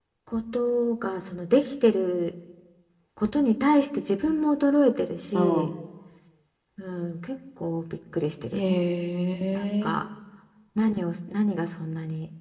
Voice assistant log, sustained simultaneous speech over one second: none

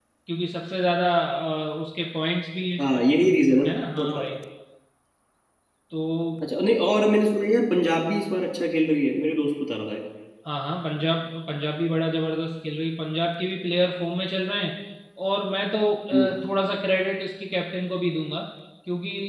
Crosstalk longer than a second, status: none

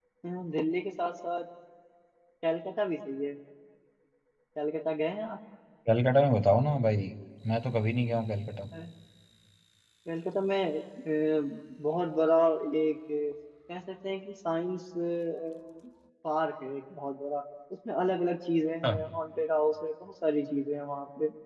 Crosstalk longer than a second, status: none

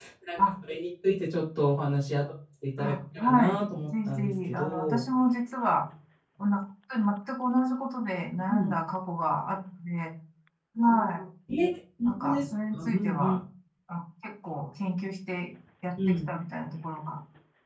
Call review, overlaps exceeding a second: present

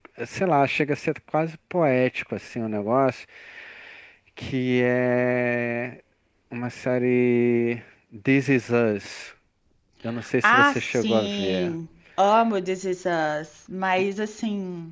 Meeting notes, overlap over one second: present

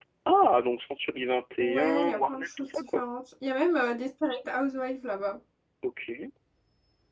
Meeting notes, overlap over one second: present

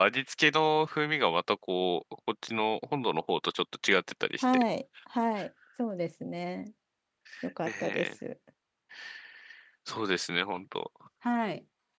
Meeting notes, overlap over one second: none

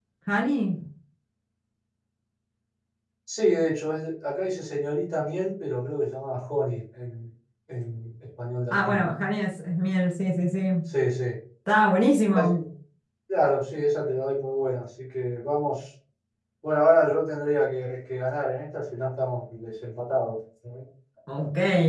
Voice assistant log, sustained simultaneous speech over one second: none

